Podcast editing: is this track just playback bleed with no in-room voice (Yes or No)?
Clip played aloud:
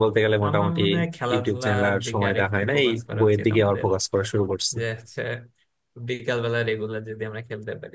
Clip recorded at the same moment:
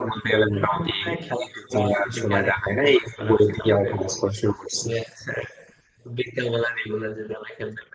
Yes